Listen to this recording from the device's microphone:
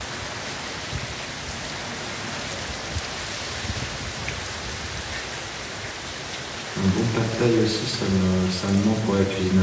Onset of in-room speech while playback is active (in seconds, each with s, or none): 6.8 s